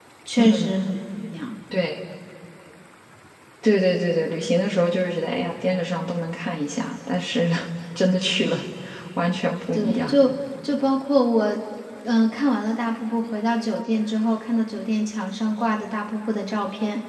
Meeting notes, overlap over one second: none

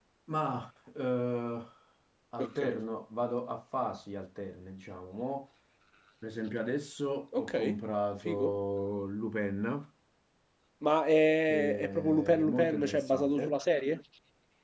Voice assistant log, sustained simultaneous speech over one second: present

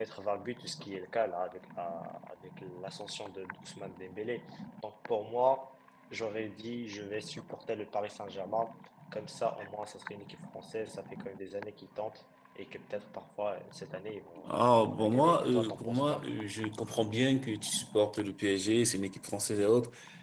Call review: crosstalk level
present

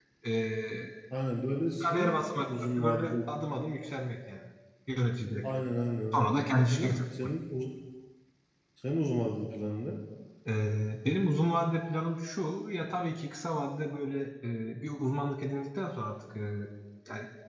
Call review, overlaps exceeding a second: present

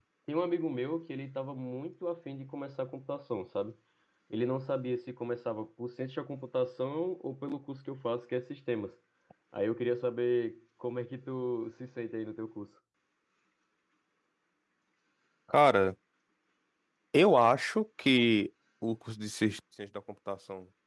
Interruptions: none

